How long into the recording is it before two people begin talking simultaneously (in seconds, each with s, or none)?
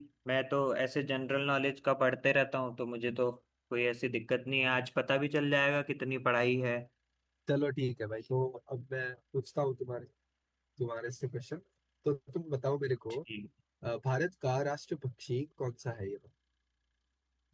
none